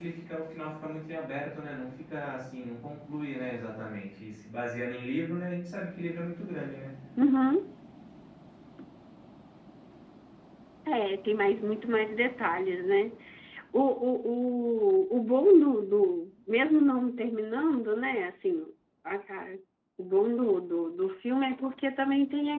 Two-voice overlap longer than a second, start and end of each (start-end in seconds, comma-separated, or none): none